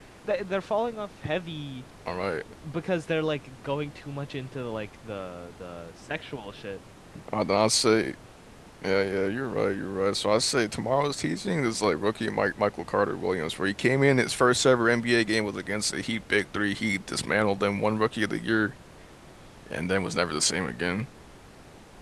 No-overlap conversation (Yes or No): Yes